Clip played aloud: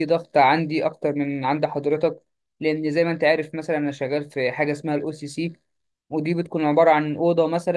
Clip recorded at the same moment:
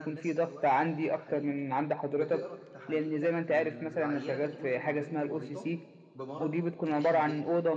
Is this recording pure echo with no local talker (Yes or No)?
No